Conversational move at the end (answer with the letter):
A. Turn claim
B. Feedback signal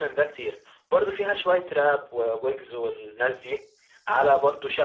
B